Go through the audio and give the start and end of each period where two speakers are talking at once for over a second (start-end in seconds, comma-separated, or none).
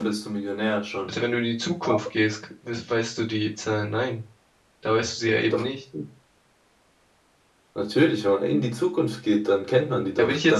none